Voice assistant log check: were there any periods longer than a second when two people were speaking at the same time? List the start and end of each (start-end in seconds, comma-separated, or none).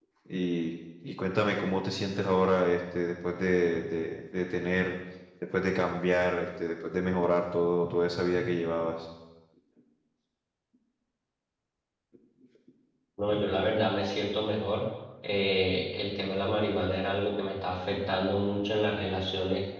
none